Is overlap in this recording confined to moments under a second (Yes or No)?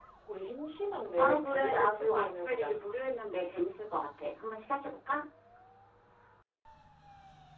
No